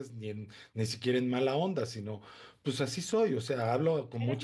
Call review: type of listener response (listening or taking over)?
taking over